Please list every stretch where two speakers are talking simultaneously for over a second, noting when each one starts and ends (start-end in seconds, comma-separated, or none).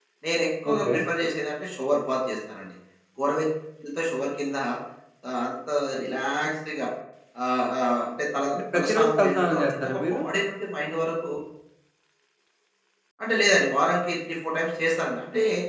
8.5-10.2